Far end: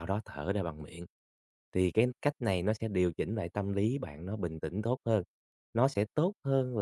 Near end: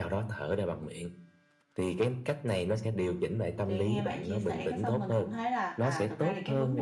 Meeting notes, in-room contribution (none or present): present